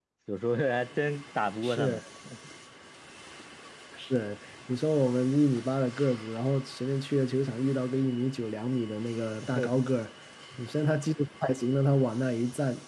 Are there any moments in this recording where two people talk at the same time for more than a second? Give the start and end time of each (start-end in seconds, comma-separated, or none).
none